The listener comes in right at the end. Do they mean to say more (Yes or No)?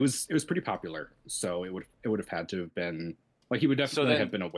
No